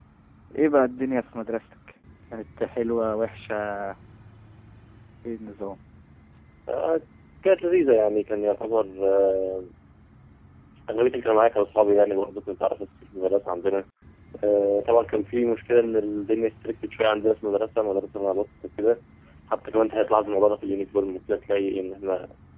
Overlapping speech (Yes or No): No